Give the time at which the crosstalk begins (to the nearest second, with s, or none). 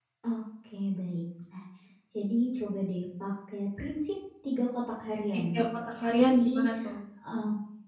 5 s